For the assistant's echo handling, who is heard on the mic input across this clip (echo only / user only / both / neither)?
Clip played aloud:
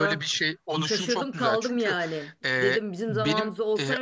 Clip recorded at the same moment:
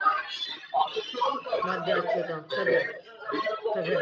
both